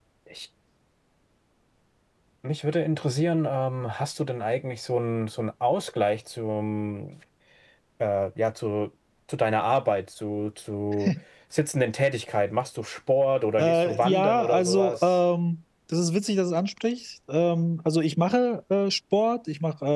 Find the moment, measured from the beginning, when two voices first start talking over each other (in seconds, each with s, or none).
13.6 s